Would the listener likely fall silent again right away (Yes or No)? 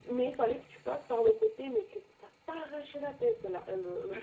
No